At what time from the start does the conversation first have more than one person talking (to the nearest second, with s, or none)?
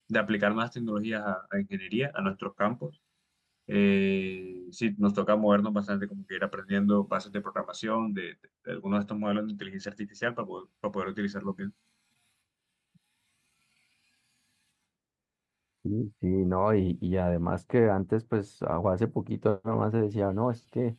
none